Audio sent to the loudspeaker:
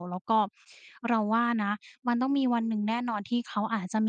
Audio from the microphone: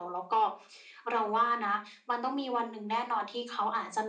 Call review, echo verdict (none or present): present